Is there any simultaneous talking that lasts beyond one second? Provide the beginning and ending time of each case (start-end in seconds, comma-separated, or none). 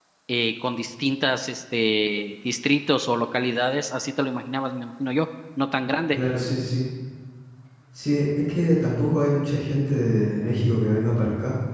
none